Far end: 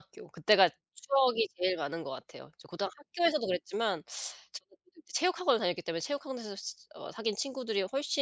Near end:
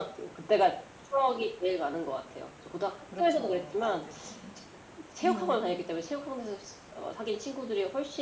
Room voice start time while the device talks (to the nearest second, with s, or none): 3 s